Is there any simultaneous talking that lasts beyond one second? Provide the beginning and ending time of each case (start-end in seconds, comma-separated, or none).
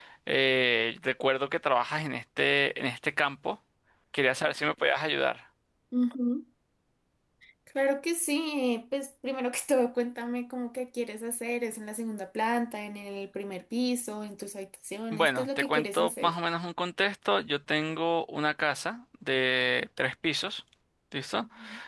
15.1-16.3